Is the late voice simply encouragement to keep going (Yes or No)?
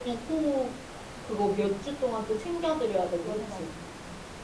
No